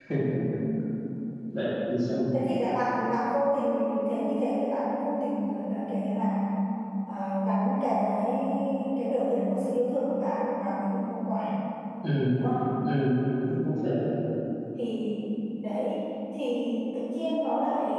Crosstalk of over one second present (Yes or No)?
No